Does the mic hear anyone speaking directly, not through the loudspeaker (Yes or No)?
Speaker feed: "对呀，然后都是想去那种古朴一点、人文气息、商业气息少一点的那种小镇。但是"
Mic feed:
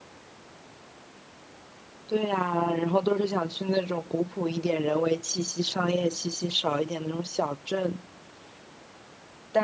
No